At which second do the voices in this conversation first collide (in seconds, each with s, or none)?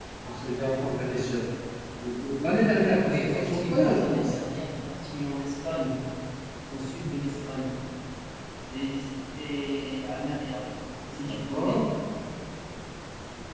3.0 s